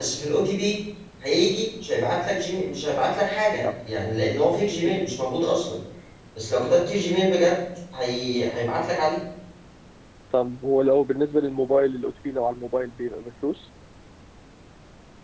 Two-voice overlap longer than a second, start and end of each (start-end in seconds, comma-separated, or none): none